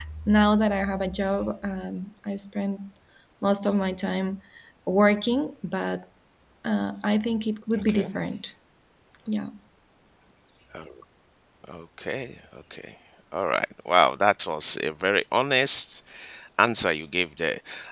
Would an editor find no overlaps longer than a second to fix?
Yes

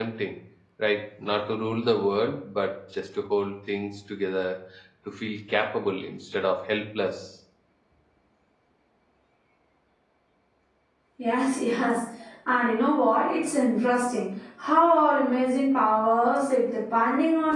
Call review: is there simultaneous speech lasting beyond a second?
No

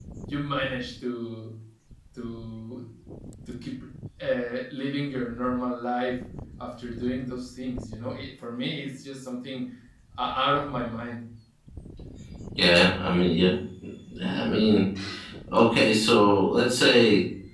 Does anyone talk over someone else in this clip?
No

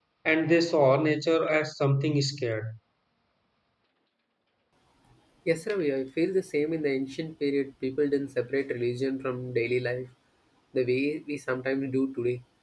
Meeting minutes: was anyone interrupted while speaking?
No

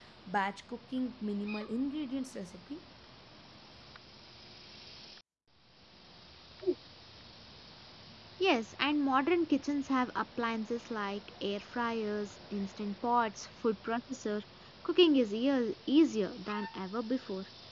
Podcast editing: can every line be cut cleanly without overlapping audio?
Yes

